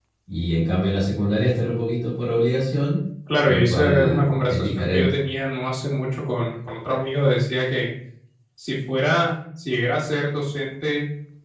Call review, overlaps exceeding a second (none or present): present